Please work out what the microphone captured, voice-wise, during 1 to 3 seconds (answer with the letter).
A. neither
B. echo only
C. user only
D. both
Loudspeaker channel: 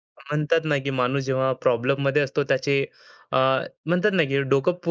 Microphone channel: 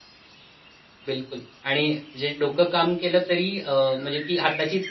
C